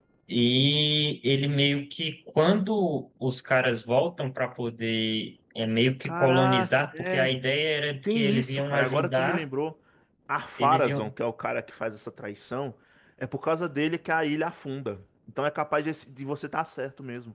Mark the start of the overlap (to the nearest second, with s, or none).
6 s